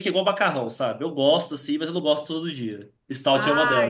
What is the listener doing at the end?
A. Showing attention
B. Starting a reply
B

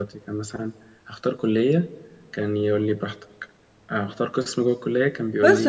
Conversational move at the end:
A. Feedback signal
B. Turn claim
B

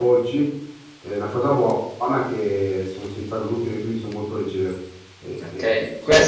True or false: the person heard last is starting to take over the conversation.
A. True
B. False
A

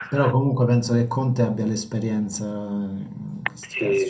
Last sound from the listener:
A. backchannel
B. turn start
B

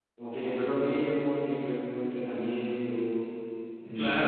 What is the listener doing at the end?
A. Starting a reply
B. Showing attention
A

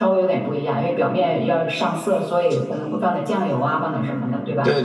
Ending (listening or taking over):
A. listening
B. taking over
B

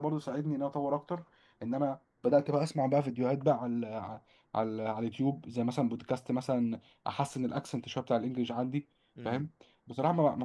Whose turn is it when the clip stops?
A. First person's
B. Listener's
A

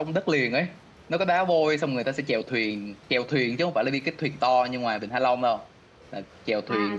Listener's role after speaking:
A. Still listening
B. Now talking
B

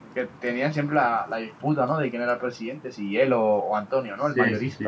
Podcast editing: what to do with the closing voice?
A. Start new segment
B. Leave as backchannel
A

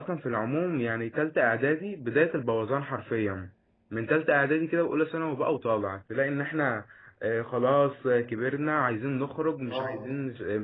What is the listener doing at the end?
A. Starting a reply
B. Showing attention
B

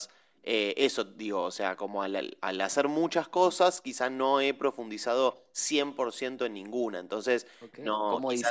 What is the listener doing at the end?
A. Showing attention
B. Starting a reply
B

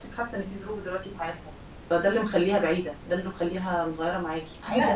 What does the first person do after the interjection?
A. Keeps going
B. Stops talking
B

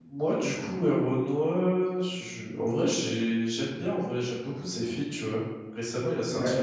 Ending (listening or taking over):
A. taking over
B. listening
B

